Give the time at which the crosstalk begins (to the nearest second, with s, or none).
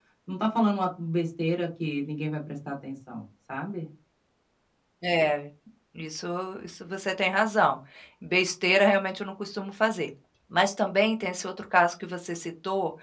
none